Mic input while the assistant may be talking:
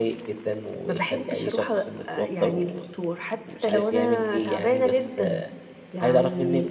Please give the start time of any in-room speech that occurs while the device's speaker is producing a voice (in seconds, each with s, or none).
none